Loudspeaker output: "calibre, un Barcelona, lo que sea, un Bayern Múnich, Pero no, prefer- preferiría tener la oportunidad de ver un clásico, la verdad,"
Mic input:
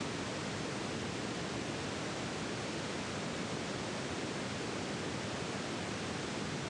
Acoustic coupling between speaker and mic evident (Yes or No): No